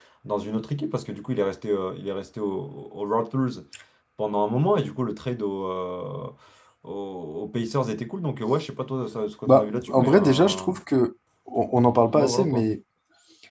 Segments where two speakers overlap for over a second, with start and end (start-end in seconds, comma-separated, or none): 9.5-10.7